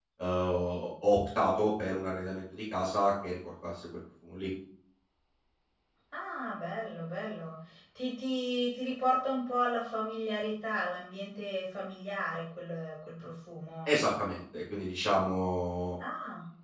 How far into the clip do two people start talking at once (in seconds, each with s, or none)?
none